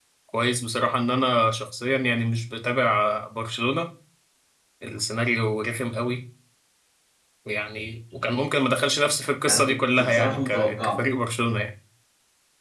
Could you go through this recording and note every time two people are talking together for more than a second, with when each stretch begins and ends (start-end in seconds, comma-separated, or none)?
9.5-11.0